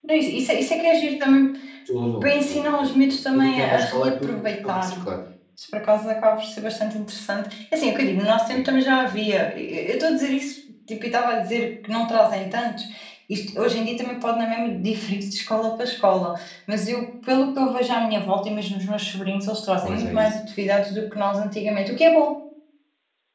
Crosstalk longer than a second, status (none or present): present